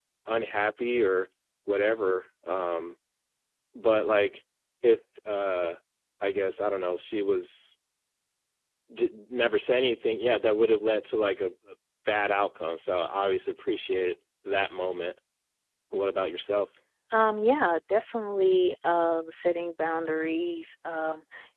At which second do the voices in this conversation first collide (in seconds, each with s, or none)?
none